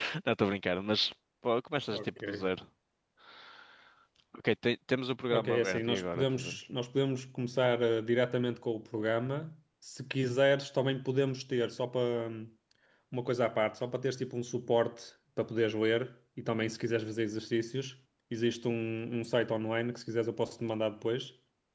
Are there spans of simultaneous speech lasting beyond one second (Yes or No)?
Yes